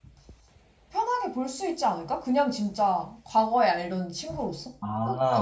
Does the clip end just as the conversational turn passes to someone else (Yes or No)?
Yes